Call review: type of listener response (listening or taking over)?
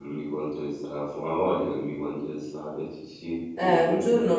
taking over